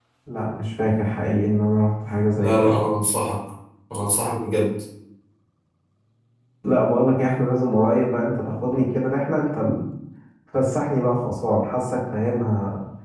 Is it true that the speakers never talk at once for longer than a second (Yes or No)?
Yes